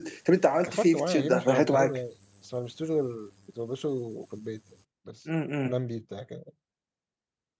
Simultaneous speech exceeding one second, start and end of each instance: 0.7-2.0

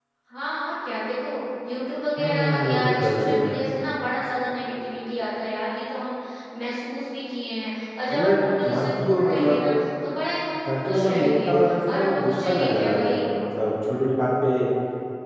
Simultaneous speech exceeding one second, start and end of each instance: 2.2-3.6, 8.1-9.7, 10.7-13.2

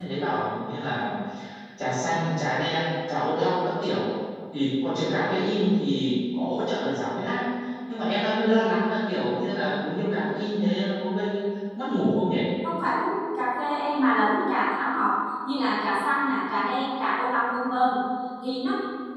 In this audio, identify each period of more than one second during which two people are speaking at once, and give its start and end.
none

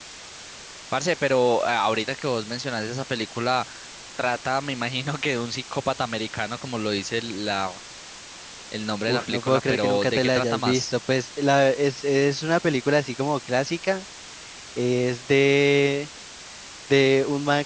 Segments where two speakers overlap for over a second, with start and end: 9.1-10.9

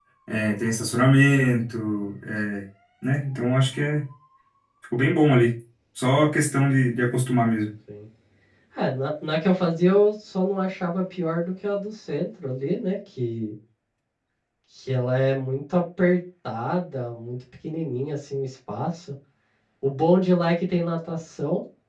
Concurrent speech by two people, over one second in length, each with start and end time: none

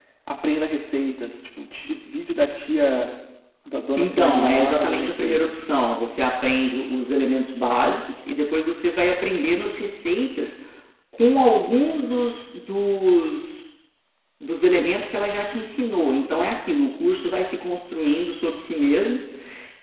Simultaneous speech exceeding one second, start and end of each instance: 4.0-5.6

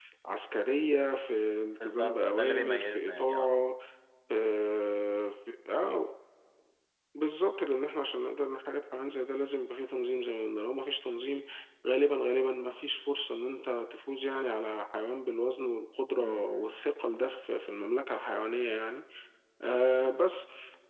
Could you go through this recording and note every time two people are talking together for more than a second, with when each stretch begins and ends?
1.8-3.5

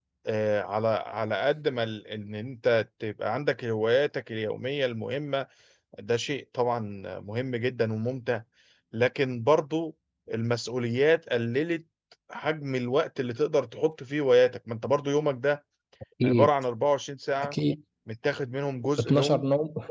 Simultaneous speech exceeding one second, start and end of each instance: none

